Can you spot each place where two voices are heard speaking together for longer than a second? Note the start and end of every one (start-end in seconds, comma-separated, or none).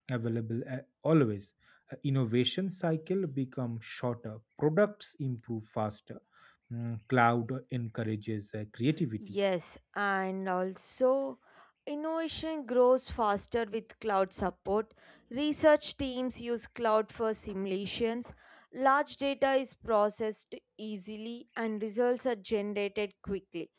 none